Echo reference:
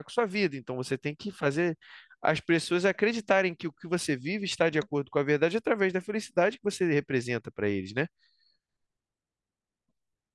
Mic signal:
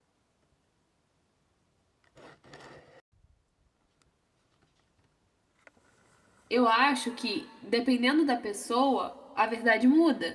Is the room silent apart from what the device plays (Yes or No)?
No